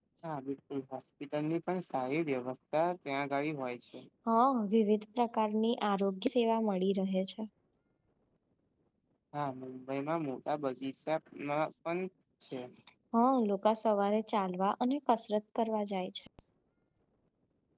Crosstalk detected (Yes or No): No